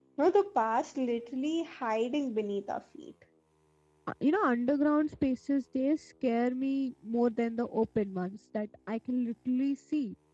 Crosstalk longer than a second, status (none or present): none